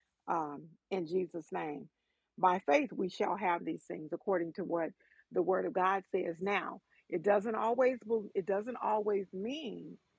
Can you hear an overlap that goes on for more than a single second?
No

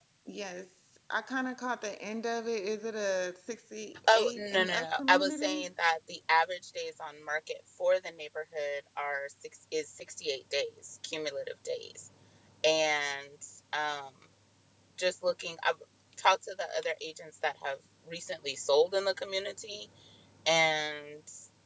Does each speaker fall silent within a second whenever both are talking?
No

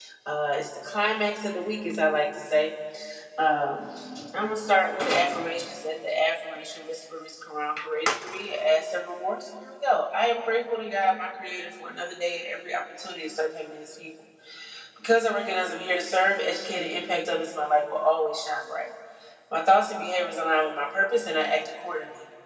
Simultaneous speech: No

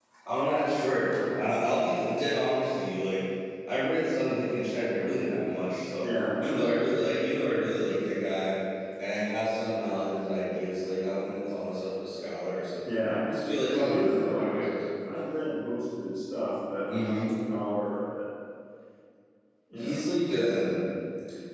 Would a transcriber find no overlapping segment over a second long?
No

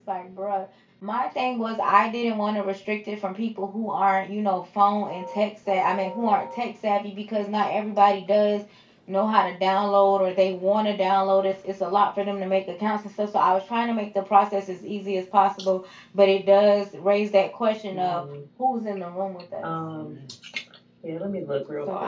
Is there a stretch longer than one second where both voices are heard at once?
No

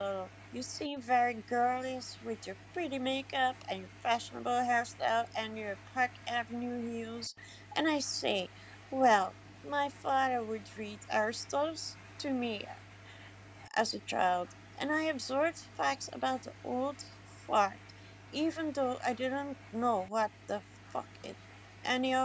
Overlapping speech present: No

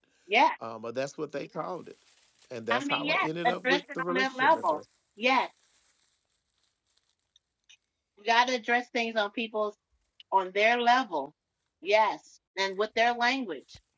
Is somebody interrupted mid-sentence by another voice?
Yes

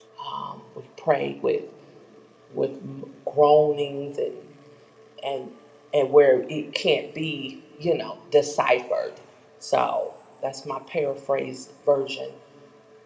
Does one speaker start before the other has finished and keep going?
No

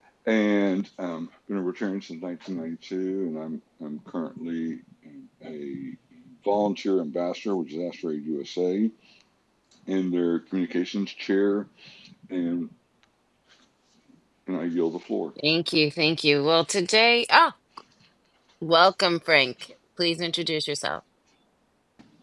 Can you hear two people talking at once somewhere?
No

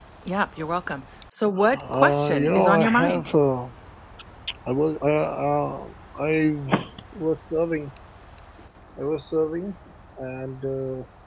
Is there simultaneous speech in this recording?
Yes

